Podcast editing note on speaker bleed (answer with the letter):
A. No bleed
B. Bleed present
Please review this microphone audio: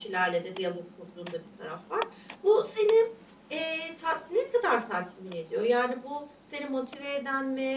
B